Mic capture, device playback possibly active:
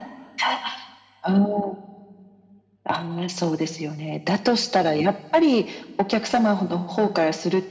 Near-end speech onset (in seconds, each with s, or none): none